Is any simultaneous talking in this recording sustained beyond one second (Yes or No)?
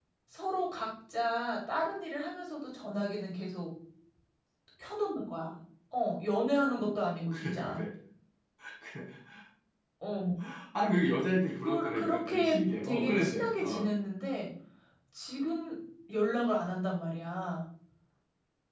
Yes